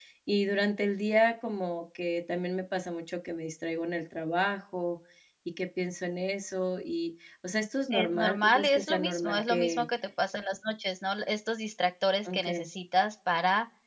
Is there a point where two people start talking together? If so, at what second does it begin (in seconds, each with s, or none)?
7.9 s